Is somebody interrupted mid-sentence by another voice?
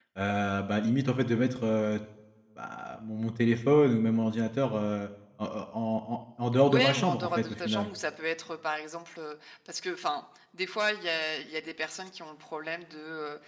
Yes, from 6.7 s

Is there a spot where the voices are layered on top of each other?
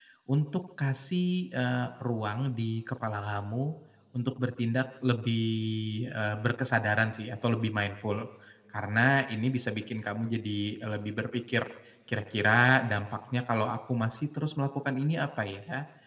No

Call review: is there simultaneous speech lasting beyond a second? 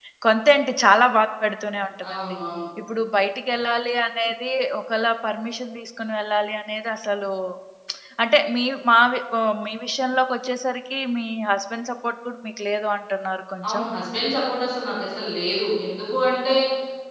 No

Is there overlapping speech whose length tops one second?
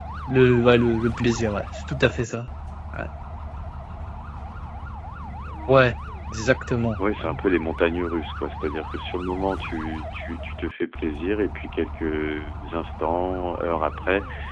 No

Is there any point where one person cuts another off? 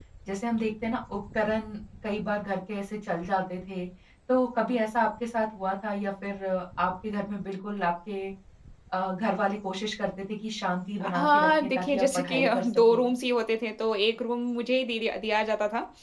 Yes, from 11.0 s

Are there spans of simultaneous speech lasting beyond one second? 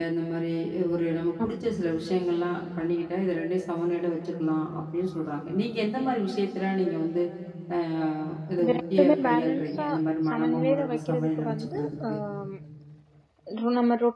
Yes, from 8.6 s

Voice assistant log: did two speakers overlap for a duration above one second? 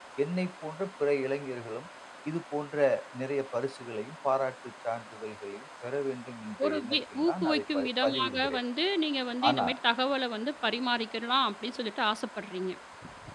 Yes, from 6.6 s

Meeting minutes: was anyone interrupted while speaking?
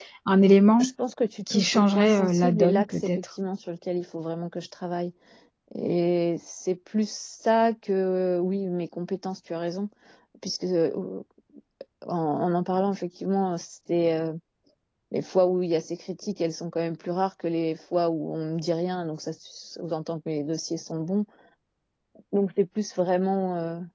Yes, from 1.5 s

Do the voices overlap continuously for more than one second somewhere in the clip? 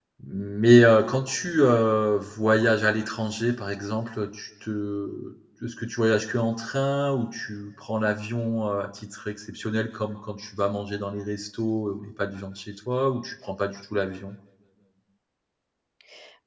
No

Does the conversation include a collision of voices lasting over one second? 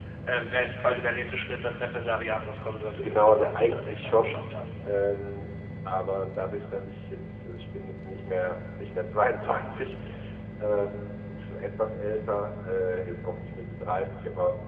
Yes, from 3.0 s

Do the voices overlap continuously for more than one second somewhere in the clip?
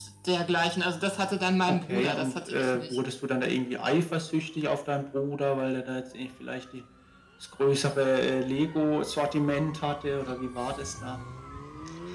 Yes, from 1.7 s

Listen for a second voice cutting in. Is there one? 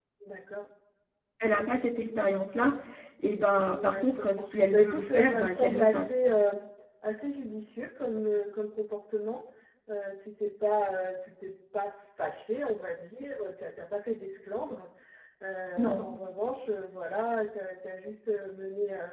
Yes, from 3.8 s

